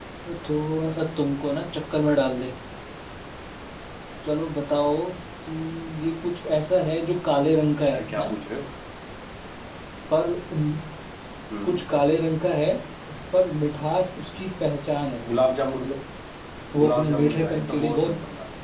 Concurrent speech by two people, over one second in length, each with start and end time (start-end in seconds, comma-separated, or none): 16.8-18.1